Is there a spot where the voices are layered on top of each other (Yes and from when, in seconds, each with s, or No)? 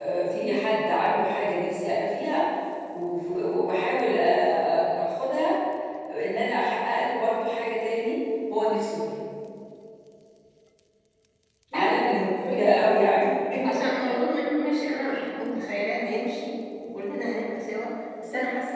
Yes, from 11.7 s